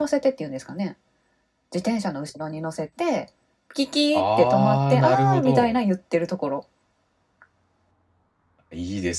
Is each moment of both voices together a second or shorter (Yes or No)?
No